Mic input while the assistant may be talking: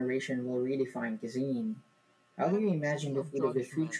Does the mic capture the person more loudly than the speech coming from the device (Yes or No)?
No